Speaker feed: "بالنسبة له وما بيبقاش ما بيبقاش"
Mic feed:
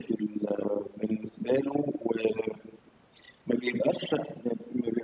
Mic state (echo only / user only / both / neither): echo only